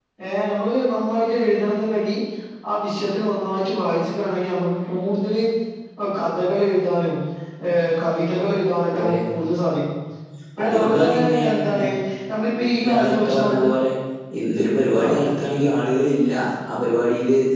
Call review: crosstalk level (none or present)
present